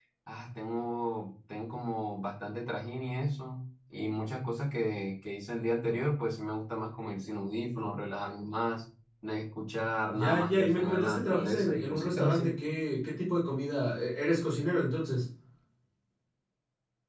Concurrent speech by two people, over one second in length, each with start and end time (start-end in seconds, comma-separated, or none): 10.1-12.5